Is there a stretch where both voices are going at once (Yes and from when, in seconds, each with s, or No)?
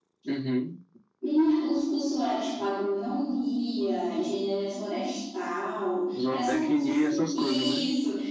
Yes, from 6.2 s